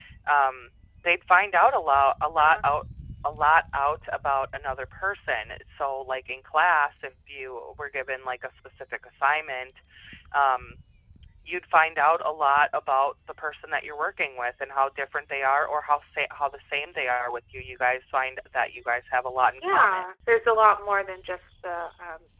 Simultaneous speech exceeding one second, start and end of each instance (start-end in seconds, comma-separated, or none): none